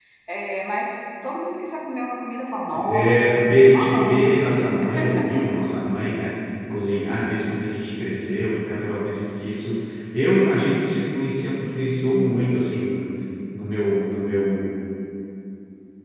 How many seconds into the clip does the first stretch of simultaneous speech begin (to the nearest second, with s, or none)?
3 s